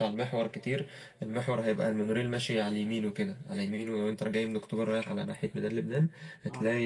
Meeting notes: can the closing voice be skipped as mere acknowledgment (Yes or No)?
Yes